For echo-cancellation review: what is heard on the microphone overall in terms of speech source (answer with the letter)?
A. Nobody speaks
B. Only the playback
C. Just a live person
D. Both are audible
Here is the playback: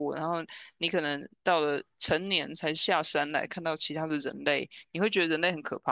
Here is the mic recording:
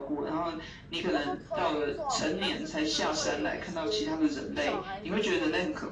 D